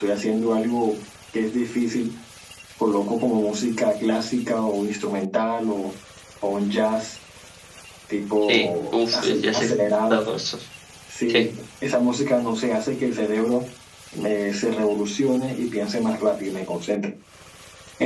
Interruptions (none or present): present